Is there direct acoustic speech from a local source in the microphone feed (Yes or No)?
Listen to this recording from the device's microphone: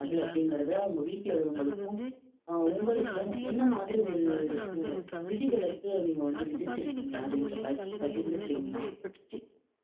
Yes